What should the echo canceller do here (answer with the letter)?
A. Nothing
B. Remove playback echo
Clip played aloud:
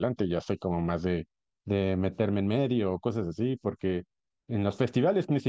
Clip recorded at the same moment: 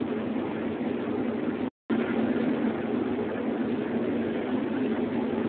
A